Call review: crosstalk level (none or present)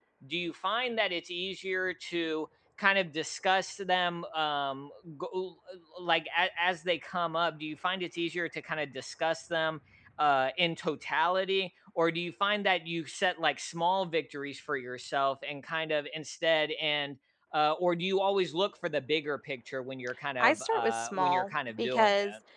present